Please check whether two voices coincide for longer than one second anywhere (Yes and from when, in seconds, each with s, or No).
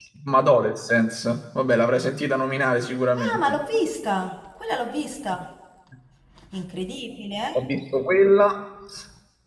No